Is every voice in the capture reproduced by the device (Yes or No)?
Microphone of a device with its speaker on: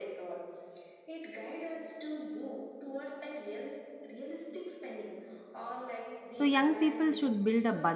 No